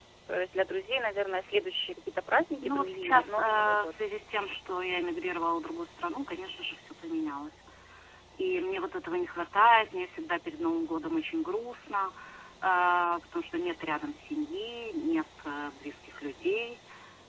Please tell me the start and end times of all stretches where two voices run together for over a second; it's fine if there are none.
2.5-3.9

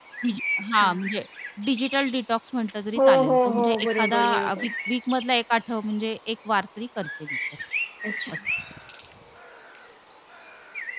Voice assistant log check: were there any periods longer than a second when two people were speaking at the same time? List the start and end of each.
3.0-4.7

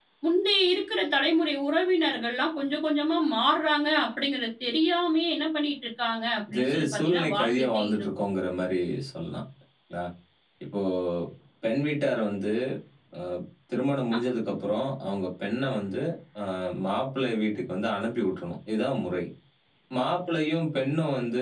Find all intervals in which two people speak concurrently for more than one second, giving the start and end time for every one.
6.5-8.0

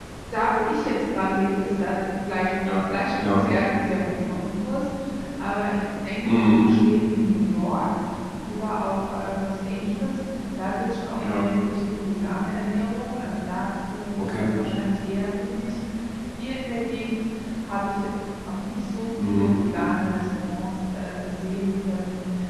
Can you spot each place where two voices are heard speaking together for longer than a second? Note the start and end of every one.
none

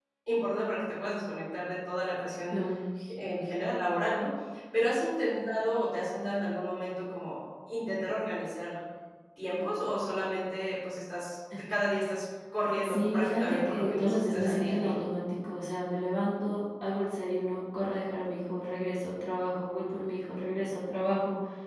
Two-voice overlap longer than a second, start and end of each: 12.8-14.9

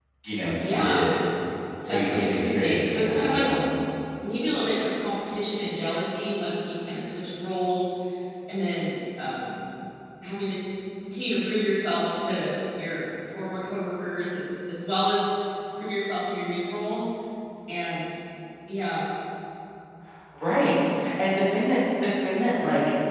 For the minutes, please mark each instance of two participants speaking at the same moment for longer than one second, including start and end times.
1.9-3.6

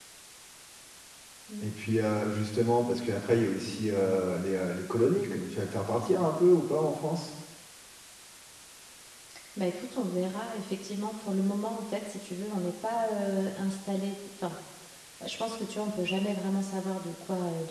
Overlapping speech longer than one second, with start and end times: none

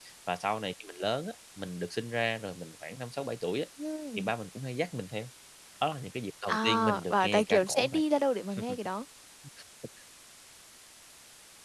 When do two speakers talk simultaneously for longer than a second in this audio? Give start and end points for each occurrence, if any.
6.5-8.0

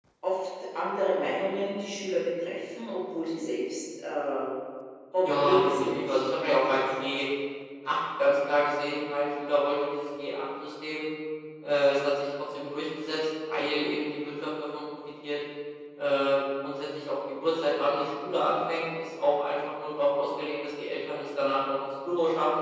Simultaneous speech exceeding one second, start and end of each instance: 5.4-6.8

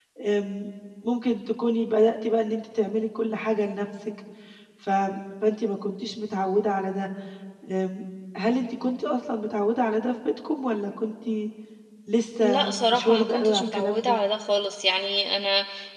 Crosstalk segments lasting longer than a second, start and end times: 12.4-14.2

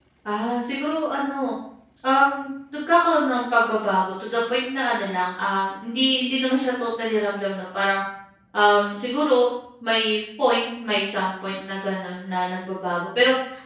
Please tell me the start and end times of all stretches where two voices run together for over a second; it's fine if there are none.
none

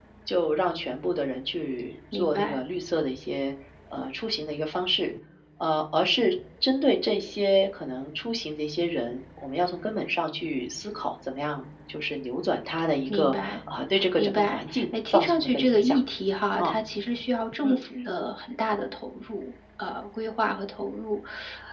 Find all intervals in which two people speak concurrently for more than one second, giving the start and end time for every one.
14.2-15.9

